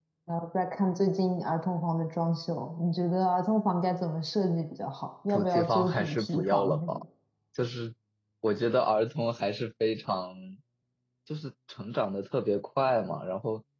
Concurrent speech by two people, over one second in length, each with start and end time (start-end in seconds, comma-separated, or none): 5.3-6.9